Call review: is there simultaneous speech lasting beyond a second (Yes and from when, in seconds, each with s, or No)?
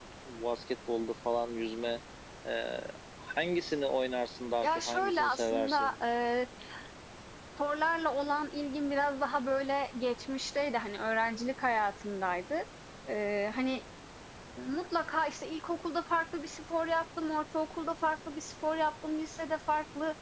Yes, from 4.6 s